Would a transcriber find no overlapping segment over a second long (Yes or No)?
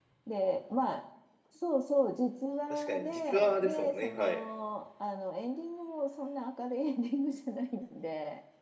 No